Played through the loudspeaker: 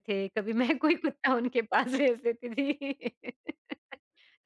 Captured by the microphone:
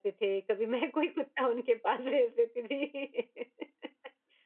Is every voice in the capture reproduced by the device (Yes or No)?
Yes